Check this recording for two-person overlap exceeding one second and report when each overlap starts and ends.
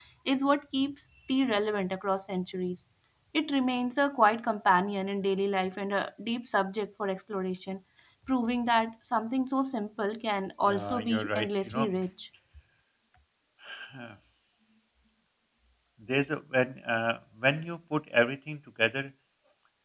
10.6-11.9

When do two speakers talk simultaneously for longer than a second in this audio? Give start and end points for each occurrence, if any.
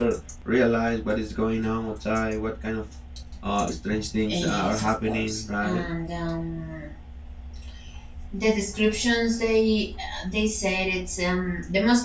4.3-5.8

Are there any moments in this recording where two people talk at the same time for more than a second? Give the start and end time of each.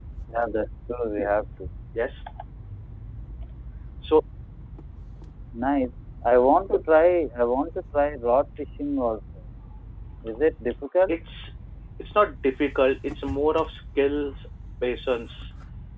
none

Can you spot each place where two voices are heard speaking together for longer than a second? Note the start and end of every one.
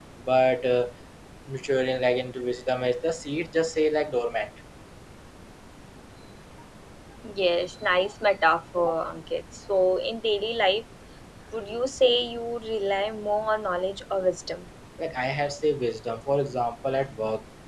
none

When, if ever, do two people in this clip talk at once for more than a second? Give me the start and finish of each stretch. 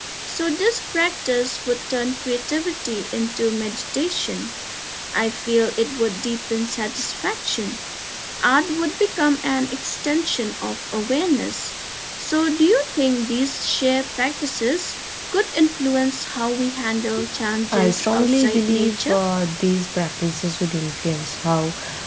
17.7-19.2

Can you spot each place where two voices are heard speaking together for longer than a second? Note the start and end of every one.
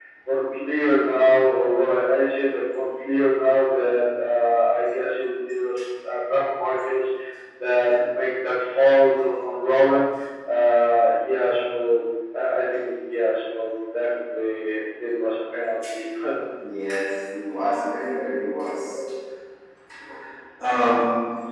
none

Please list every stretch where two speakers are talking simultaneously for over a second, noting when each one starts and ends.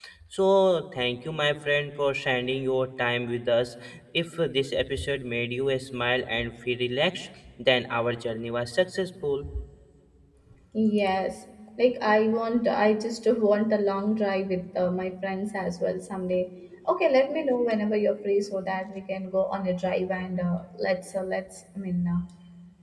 none

